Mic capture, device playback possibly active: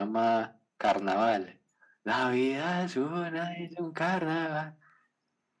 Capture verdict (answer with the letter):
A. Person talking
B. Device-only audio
B